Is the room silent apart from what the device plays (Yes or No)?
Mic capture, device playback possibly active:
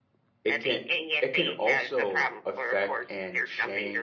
No